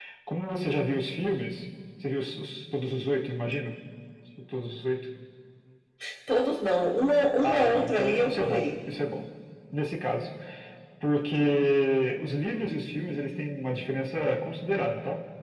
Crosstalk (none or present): present